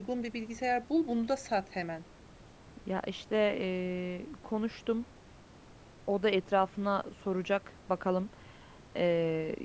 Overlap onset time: none

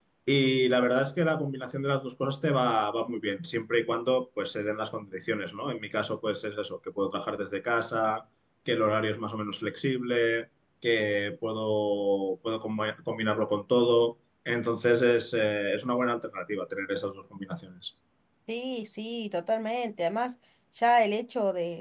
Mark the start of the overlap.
none

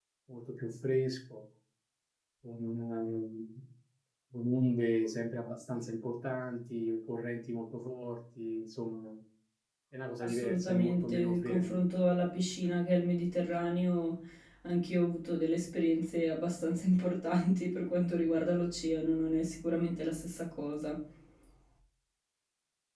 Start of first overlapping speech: 10.2 s

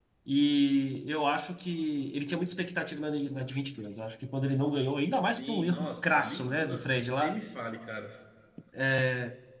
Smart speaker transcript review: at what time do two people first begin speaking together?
5.4 s

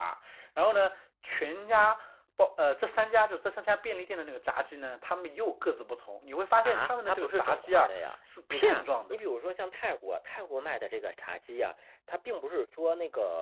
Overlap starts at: 6.6 s

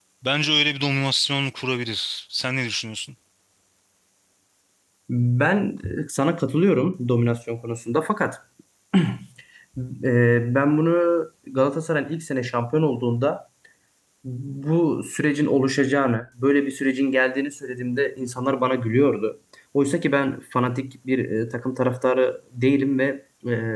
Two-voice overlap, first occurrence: none

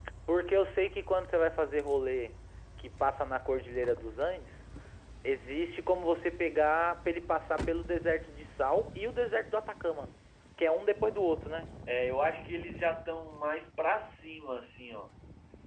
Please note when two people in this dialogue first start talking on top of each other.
none

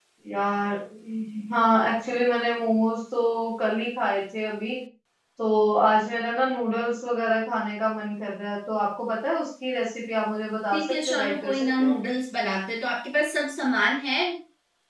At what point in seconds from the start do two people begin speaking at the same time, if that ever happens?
10.7 s

